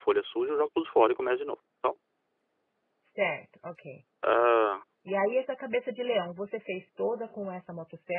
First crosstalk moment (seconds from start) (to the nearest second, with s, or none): none